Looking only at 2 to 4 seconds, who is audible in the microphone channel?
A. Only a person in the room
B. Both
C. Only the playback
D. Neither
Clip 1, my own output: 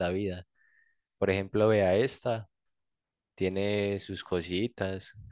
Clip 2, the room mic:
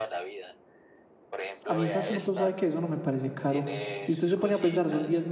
B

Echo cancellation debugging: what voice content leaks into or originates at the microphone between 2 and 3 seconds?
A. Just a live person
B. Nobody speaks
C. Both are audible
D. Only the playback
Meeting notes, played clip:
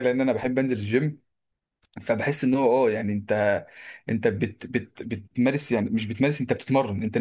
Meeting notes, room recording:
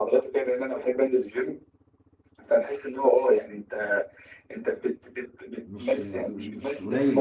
D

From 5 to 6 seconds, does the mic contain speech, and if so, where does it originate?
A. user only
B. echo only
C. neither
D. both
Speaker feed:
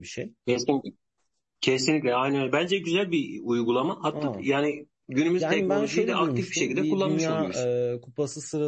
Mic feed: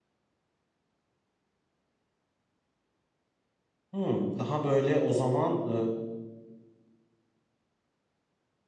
A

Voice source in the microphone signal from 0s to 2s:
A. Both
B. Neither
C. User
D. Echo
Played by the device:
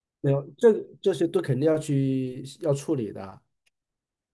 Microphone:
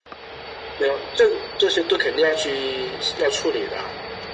D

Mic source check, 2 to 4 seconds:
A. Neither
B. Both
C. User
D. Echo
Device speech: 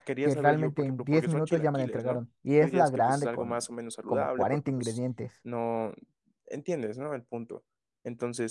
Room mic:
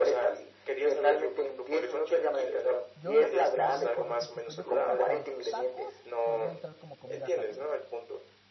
B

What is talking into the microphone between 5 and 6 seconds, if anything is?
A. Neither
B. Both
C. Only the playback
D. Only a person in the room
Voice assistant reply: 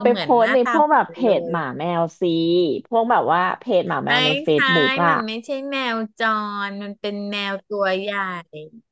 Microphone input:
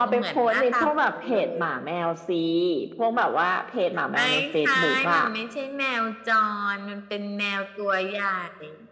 C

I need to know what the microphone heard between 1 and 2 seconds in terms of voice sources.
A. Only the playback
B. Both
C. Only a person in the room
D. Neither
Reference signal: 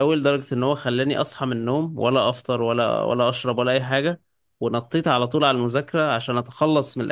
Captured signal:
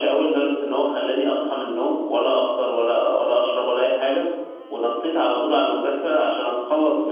A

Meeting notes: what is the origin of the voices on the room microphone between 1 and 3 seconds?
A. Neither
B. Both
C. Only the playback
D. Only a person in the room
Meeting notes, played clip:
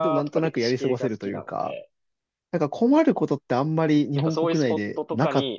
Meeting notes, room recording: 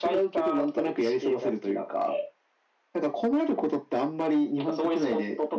C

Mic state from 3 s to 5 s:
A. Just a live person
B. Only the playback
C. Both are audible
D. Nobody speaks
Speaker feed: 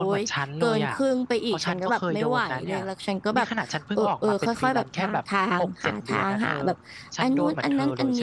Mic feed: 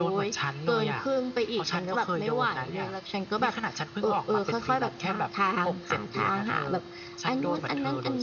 B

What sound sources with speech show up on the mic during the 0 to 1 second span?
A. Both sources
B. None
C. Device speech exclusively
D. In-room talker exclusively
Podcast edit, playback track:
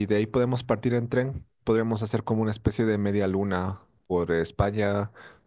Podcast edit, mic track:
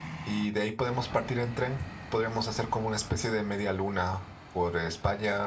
C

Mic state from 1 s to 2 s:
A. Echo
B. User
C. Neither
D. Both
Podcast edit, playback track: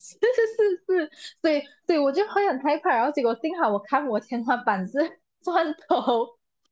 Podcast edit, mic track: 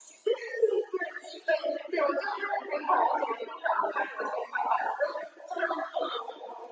A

